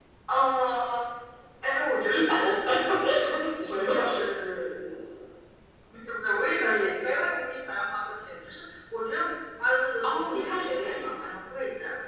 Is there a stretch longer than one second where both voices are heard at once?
Yes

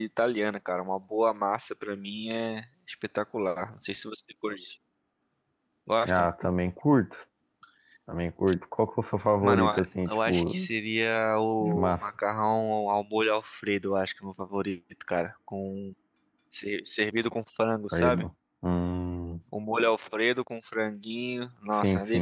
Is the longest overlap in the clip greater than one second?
Yes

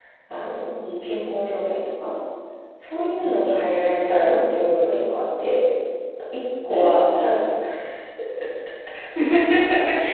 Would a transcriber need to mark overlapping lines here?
Yes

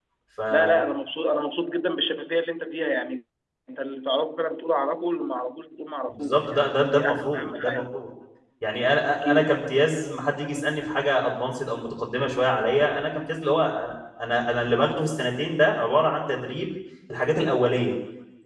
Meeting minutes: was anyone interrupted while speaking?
Yes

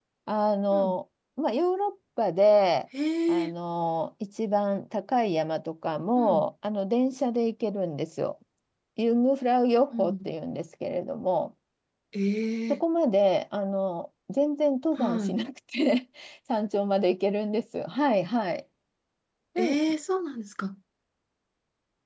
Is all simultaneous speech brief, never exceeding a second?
Yes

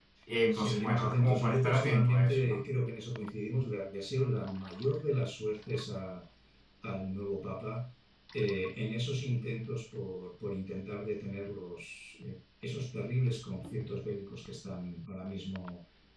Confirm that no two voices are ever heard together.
No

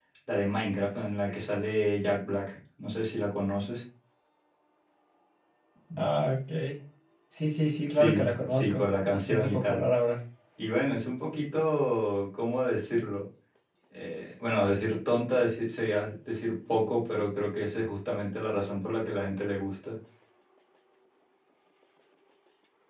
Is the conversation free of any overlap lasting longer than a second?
No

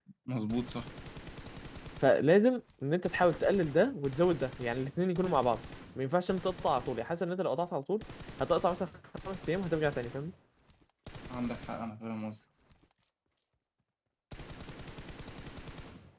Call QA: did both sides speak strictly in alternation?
Yes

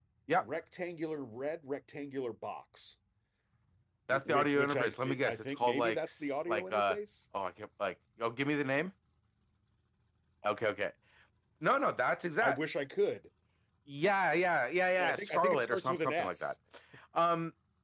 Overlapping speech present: Yes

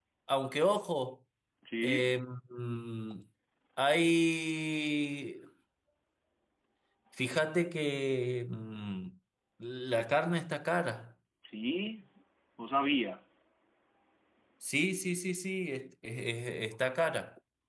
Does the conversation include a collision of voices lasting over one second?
No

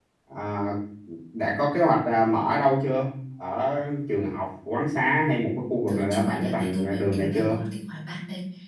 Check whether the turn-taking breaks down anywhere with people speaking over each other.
Yes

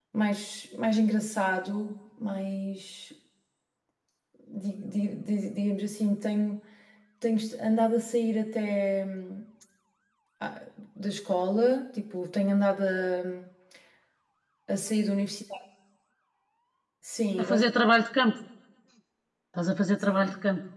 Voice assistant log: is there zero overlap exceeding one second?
Yes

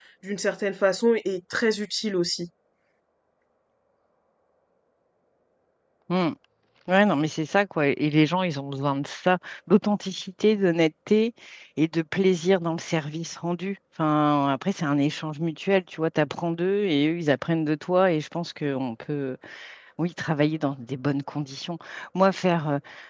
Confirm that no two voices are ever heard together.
Yes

